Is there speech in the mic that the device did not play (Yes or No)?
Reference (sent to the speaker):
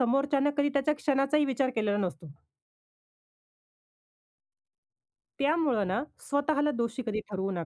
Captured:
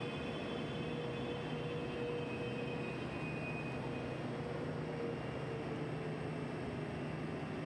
No